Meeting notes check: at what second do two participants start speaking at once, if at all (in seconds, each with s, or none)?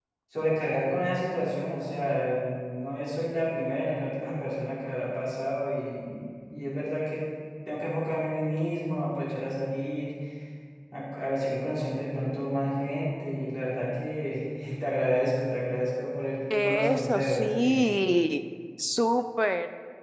16.5 s